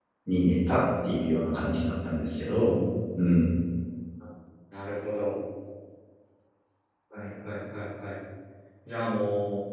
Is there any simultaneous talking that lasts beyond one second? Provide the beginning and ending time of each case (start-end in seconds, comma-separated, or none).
none